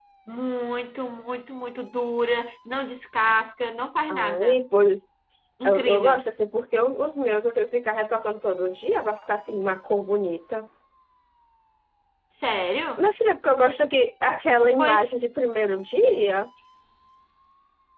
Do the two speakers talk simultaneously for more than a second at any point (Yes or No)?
No